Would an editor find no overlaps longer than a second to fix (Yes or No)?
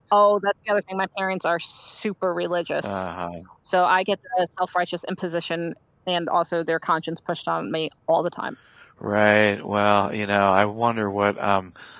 Yes